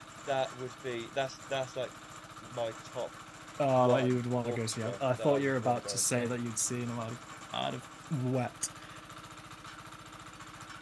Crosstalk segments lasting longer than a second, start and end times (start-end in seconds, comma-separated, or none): 3.8-6.3